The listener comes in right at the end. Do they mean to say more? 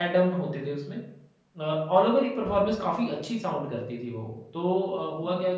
No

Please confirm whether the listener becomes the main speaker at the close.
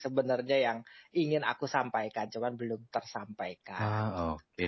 Yes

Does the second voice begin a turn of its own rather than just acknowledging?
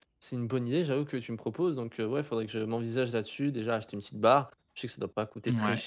No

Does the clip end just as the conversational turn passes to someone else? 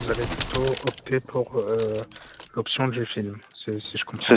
Yes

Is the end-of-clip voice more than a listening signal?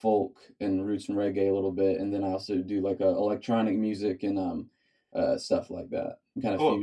Yes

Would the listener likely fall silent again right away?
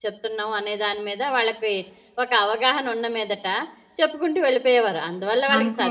Yes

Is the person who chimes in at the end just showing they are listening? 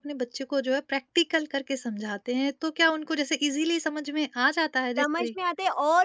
No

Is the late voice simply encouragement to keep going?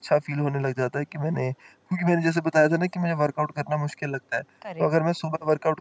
Yes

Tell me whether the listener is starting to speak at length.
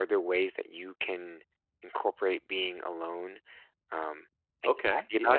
Yes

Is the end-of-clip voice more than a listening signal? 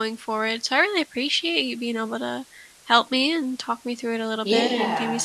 No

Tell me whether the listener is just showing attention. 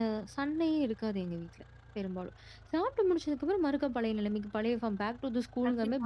No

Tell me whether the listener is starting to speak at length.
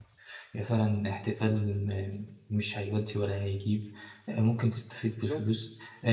No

